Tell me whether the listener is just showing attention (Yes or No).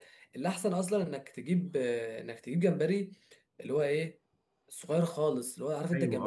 No